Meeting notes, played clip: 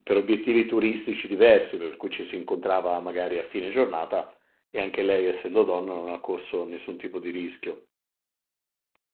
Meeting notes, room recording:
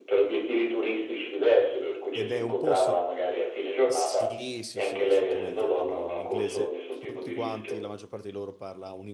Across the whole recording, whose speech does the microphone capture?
both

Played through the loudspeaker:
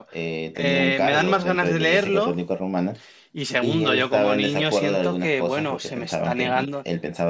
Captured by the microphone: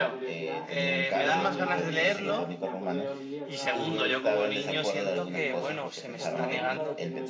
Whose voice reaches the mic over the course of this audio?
both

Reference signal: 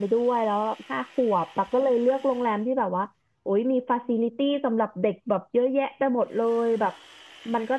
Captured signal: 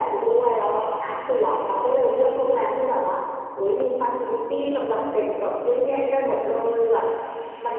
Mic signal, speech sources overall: echo only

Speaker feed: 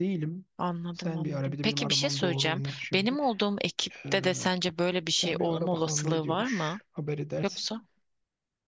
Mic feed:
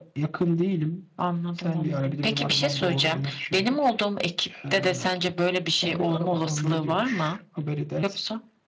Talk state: echo only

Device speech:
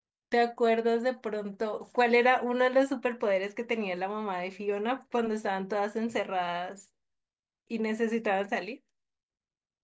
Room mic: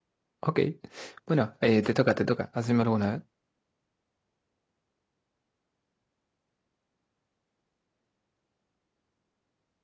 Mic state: user only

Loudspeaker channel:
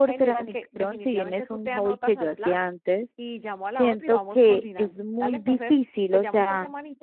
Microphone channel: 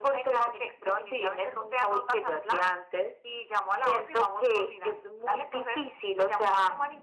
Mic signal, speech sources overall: echo only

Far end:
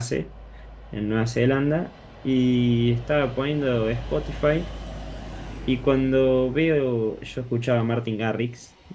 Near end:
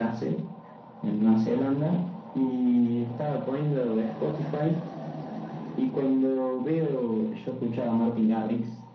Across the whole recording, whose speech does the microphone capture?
echo only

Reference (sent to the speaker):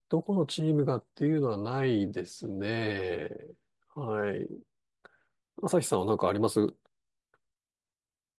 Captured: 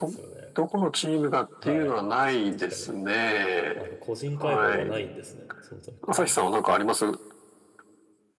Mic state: both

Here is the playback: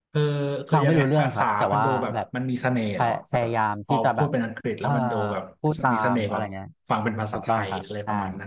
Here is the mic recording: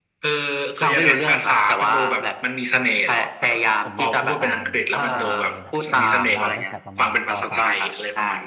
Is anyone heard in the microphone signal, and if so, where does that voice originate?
both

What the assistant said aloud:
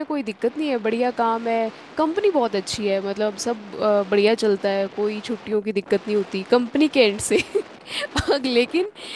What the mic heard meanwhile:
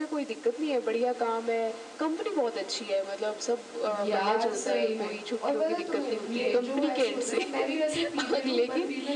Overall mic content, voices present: both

